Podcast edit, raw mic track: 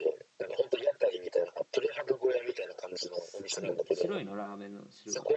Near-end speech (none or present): present